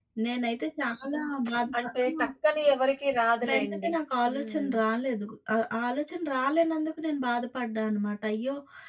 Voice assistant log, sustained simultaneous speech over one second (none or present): none